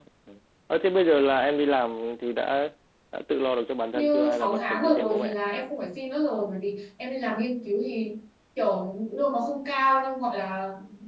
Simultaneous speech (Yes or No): Yes